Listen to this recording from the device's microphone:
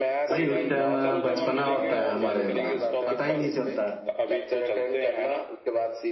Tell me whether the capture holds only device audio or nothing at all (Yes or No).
No